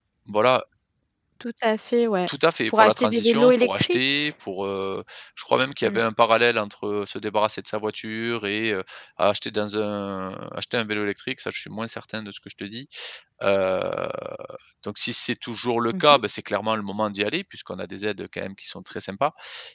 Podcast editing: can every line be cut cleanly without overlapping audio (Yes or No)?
No